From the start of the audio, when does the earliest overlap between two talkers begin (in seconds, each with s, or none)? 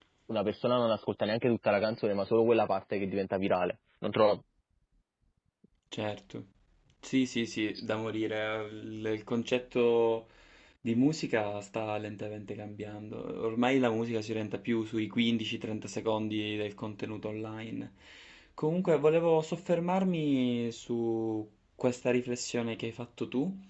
none